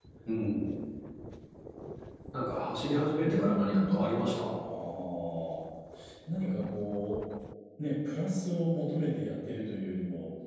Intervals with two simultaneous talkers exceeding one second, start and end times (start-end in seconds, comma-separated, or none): 3.2-4.4